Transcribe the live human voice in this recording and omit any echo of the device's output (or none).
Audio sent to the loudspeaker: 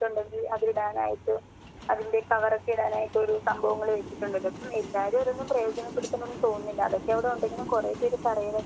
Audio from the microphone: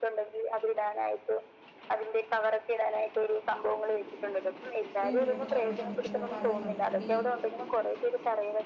ടി വി യൊക്കെ കണ്ടിട്ടൊണ്ടങ്കില്ലും പല നദി